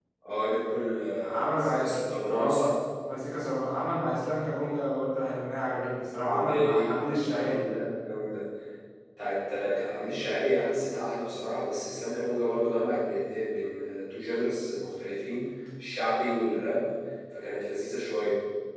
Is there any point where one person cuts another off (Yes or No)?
Yes